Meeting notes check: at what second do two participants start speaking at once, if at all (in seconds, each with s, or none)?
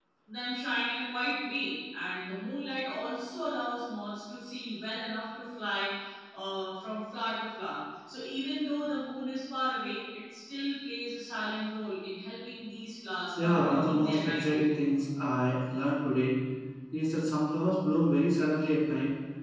13.4 s